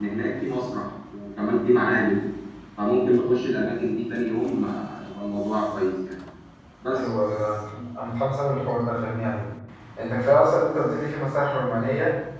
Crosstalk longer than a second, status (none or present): none